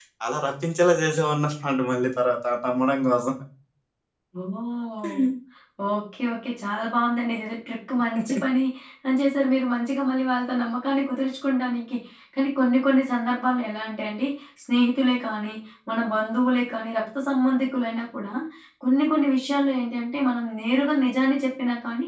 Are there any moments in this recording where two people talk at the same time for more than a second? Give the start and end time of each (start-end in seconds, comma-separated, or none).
none